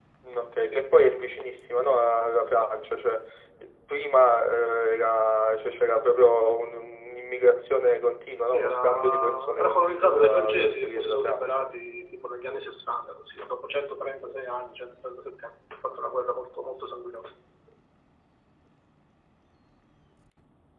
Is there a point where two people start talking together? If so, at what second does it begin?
8.5 s

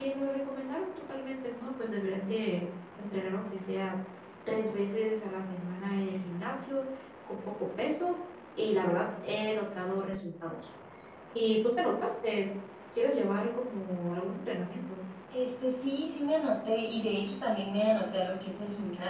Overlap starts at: none

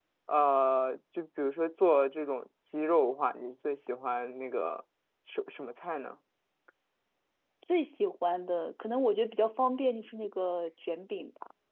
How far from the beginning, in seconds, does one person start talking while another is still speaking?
none

